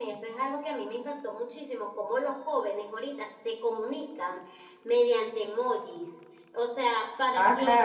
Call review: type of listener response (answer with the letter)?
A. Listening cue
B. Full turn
B